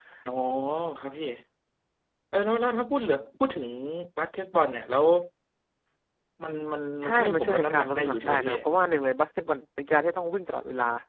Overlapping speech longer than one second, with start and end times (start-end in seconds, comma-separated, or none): 7.0-8.5